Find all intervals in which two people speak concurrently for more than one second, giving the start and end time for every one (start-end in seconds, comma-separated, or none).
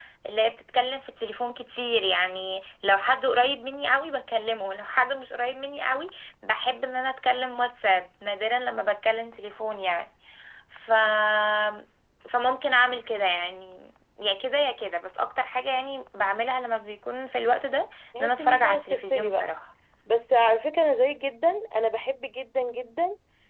18.2-19.5